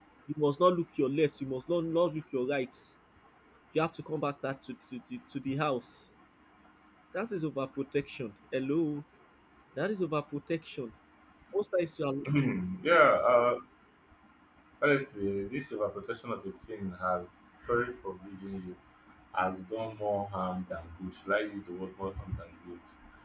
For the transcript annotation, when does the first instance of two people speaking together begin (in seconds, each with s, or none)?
none